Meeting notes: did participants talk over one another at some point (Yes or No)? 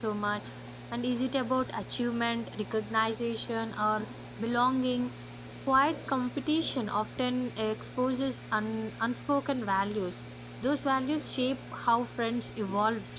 No